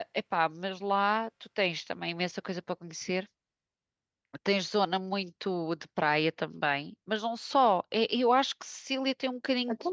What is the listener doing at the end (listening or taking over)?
taking over